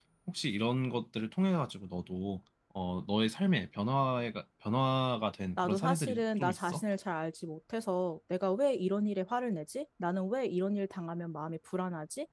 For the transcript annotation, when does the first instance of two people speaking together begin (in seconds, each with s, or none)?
5.6 s